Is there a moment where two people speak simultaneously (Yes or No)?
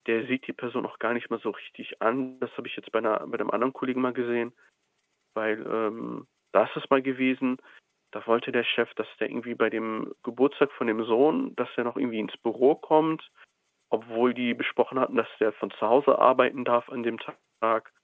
No